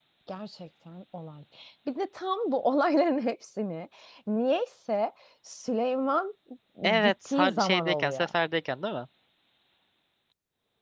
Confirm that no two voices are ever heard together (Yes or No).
No